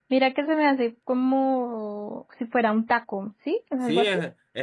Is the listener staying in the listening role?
No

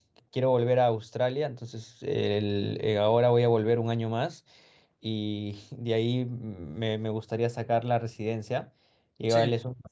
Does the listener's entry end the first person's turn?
No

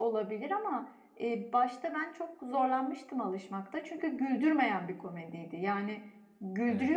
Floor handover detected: No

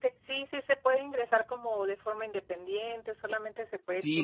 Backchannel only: No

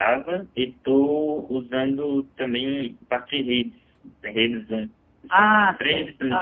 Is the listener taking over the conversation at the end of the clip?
Yes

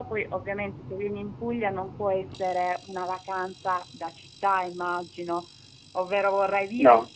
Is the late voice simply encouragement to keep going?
Yes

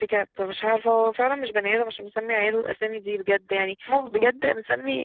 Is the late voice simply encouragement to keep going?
Yes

